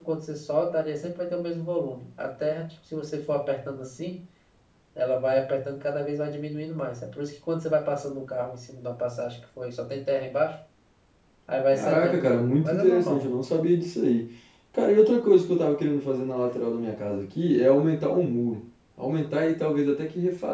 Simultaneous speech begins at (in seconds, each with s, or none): 11.7 s